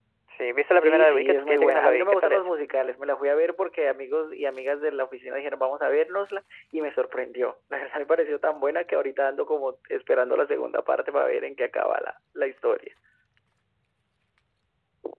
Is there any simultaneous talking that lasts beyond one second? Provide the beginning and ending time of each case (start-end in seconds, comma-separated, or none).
0.8-2.5